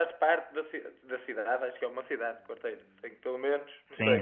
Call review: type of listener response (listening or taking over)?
taking over